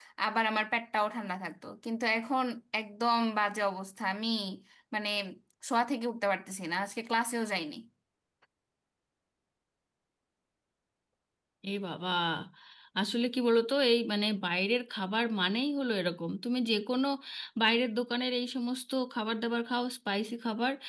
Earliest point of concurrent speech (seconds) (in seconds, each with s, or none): none